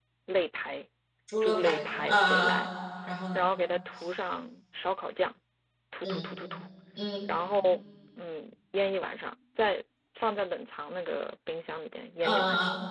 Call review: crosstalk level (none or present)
present